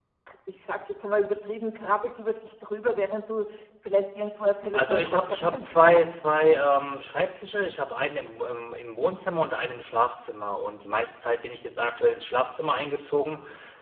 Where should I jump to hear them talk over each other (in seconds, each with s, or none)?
4.7 s